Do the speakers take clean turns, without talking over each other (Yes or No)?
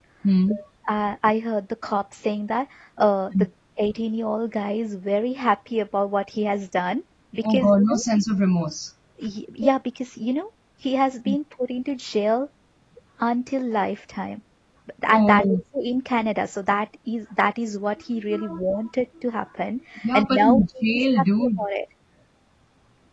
No